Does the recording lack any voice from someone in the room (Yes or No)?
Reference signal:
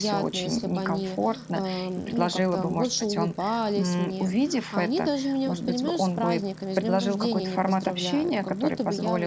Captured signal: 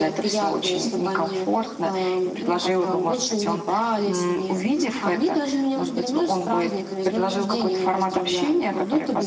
Yes